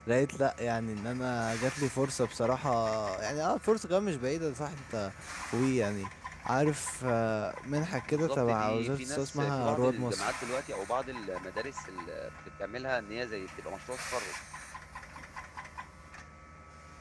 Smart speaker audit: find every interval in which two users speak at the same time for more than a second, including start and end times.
8.1-10.3

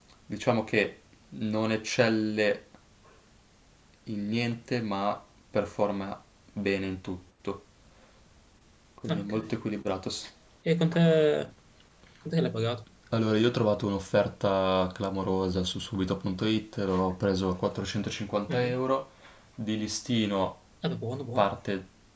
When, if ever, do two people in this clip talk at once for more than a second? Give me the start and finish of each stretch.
none

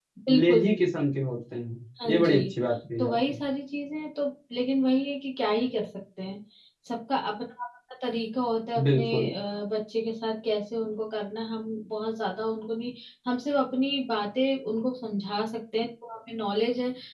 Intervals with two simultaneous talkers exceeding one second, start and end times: none

